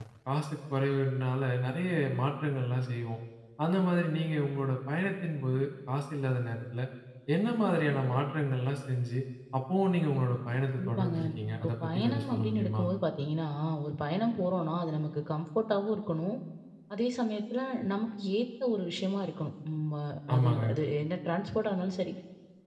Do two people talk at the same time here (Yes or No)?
Yes